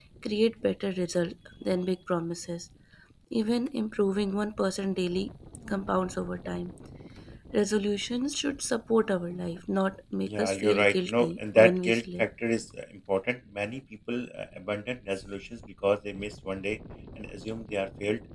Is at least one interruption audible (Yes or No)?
Yes